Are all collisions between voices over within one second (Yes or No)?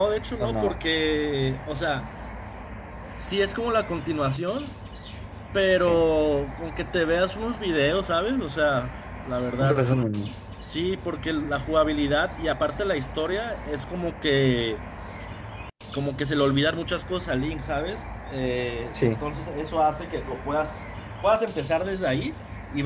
Yes